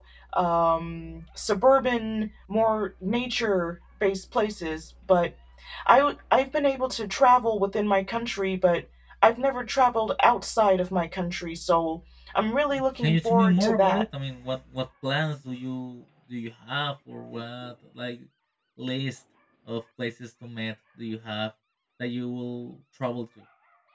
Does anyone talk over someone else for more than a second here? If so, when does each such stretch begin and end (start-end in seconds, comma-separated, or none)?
12.7-14.0